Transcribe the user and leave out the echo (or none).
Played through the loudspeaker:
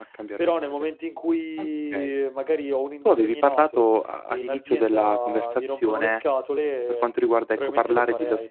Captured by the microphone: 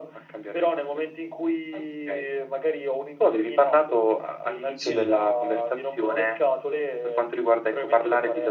Sì.